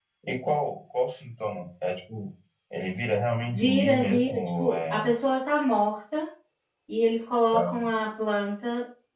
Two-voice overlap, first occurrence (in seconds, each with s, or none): 3.5 s